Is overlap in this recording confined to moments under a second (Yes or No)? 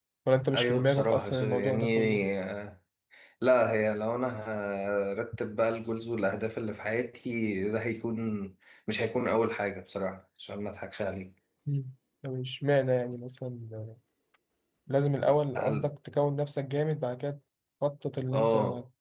No